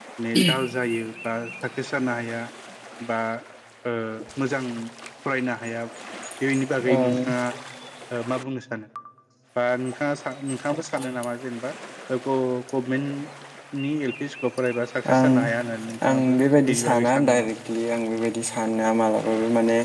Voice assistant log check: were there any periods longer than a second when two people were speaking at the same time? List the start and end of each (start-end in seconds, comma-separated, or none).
16.1-17.5